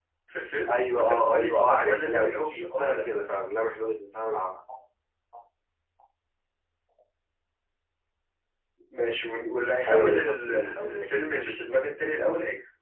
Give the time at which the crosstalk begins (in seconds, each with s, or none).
0.7 s